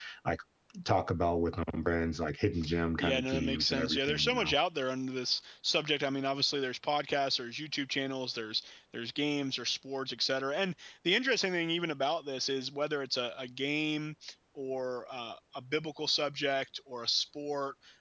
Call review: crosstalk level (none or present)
present